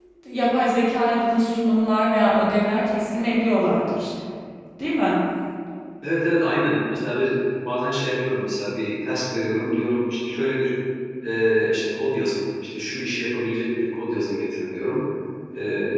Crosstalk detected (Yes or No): No